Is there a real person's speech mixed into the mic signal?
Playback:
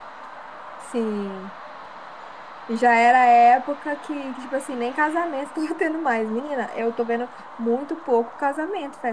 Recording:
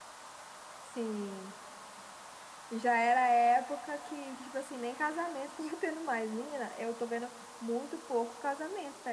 No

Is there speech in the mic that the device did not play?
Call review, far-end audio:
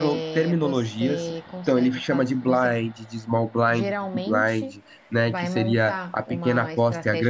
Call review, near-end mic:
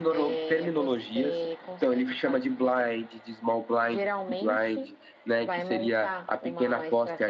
No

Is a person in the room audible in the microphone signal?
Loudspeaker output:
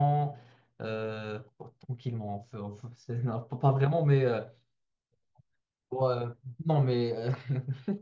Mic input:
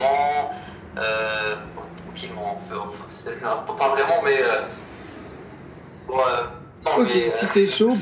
Yes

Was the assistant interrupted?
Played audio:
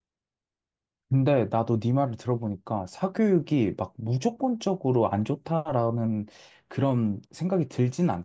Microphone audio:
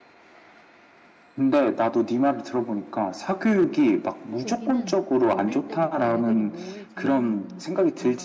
Yes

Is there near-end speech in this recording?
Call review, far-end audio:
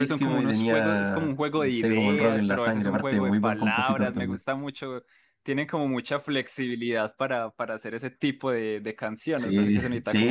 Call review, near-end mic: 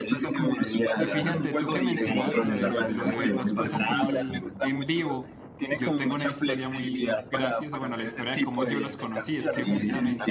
Yes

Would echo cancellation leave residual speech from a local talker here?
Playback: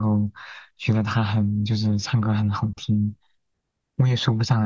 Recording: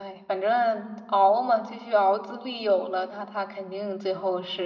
Yes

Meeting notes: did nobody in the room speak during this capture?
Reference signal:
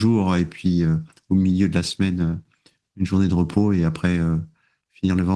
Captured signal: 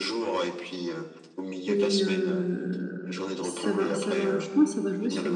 No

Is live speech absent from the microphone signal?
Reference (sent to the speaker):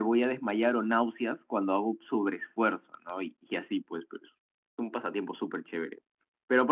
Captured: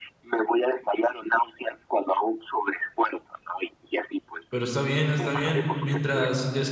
No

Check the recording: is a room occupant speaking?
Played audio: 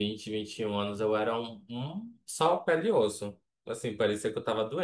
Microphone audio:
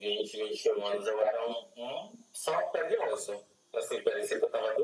No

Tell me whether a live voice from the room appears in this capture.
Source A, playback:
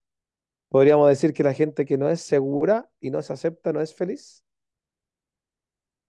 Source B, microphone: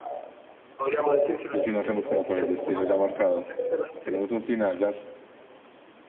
Yes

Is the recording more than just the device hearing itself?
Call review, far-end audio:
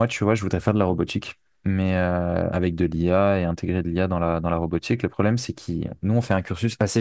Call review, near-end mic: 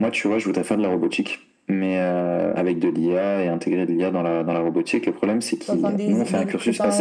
Yes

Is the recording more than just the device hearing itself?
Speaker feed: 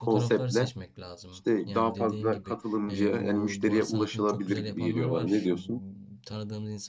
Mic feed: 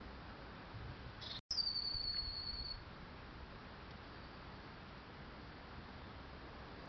No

